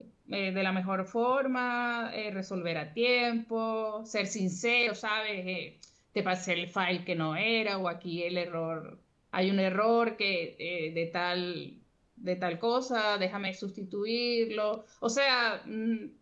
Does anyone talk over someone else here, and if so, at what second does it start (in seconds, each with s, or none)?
none